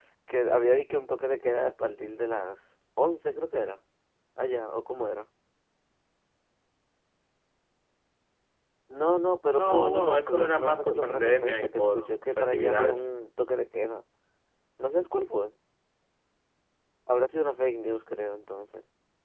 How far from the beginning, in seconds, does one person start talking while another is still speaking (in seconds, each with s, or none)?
9.5 s